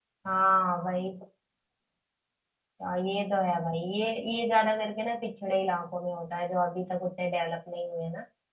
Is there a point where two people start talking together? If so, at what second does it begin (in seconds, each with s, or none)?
none